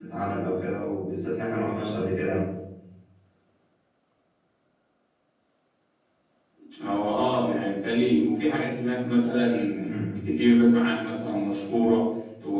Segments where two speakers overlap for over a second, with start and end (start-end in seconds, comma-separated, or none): none